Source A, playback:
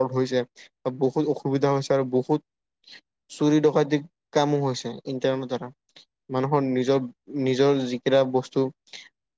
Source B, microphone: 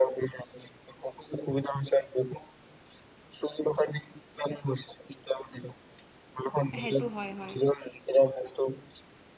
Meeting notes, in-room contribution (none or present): present